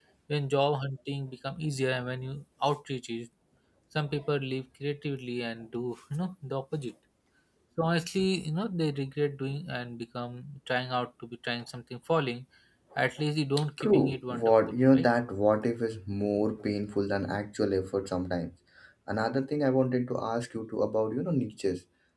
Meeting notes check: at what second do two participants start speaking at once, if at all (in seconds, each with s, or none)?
13.8 s